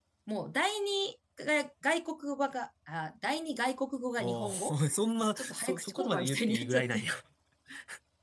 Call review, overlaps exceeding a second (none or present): present